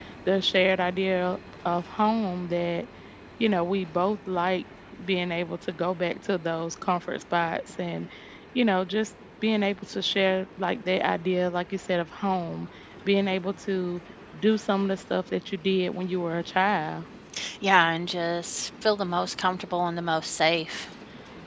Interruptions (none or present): none